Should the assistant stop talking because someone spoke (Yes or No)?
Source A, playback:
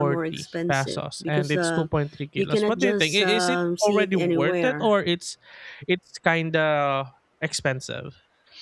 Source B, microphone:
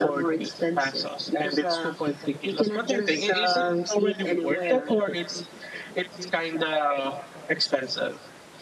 No